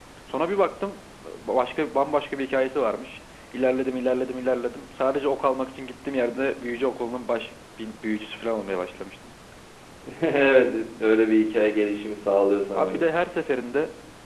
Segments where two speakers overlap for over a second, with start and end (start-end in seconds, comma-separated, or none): none